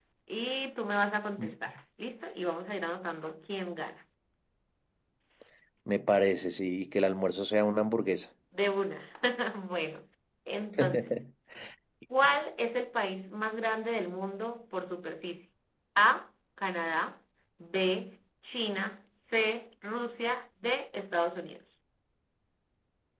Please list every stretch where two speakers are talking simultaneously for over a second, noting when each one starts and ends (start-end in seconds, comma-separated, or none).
none